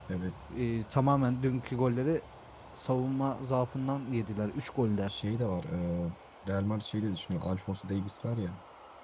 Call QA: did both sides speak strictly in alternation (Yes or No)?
Yes